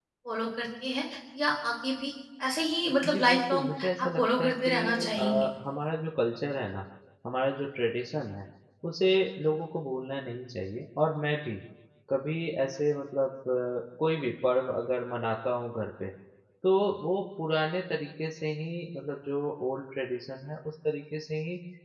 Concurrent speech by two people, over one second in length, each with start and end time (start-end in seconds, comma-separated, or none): 3.0-5.5